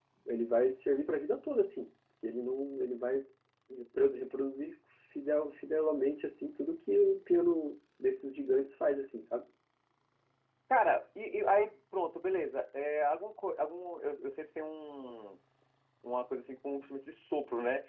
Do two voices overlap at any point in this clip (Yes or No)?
No